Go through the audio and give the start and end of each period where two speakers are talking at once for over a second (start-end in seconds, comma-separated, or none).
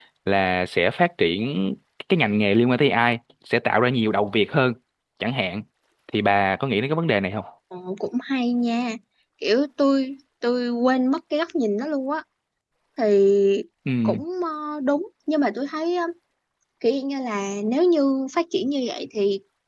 none